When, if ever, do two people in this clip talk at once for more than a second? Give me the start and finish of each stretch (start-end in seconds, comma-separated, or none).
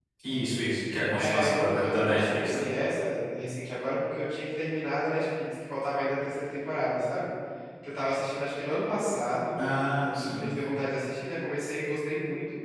1.2-2.6